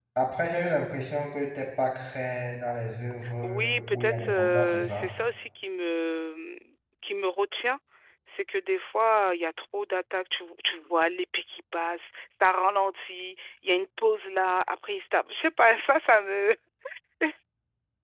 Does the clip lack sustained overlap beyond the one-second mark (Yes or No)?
No